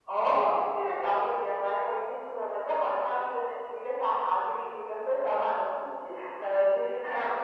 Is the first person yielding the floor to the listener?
No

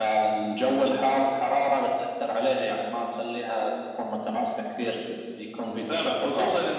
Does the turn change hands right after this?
Yes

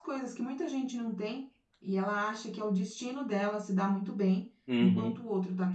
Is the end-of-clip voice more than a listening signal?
No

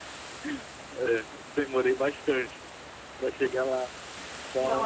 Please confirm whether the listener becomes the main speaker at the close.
Yes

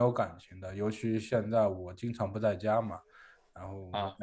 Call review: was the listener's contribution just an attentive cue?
Yes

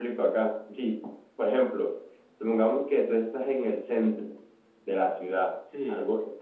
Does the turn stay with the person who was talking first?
Yes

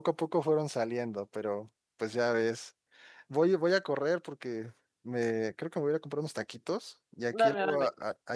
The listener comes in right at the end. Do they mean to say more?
No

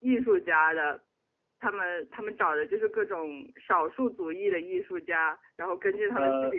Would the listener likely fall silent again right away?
Yes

